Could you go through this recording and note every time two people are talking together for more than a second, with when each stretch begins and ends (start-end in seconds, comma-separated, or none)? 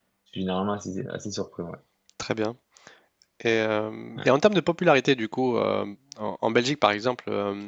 none